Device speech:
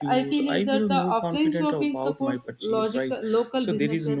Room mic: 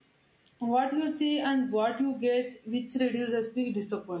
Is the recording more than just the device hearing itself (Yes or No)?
Yes